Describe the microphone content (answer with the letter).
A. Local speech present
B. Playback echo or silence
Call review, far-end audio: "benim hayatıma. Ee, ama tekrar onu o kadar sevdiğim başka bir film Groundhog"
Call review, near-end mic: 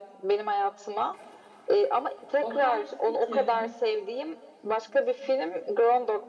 A